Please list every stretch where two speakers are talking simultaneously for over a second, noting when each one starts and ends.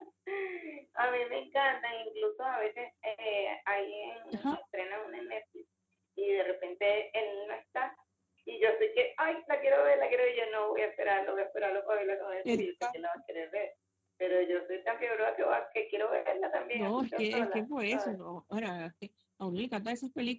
16.7-18.2

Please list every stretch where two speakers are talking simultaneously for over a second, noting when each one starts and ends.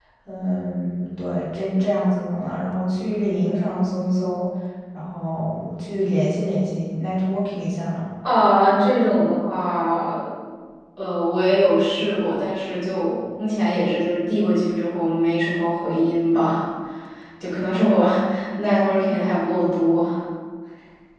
none

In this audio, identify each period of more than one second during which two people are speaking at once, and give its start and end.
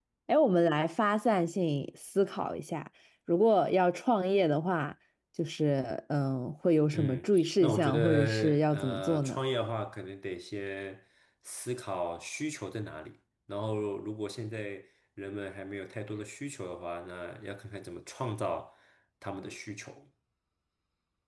6.9-9.4

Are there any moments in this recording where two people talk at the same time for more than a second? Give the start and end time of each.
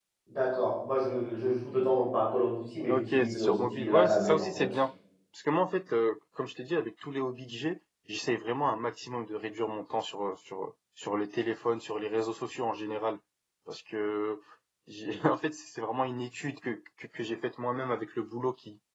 2.9-4.7

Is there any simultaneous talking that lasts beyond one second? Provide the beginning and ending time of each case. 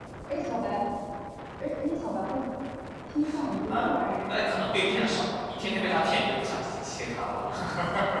4.3-6.2

